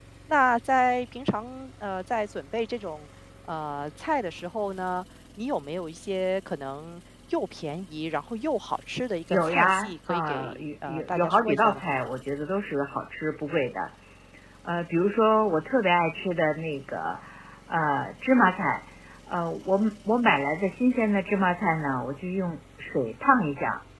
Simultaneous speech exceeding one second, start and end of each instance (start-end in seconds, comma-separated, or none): 9.3-11.8